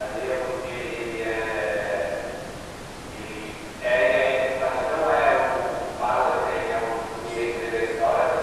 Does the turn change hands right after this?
No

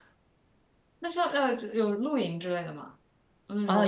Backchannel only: No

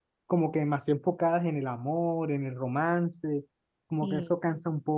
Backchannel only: Yes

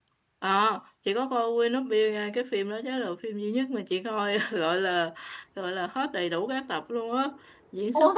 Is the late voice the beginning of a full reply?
No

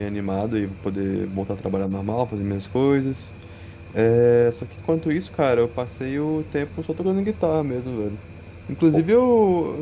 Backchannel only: Yes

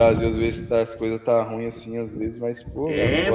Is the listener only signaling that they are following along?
No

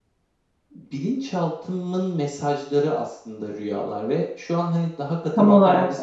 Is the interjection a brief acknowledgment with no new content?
Yes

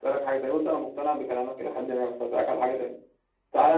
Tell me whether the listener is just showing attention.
Yes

